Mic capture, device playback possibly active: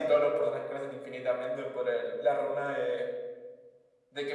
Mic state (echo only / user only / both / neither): echo only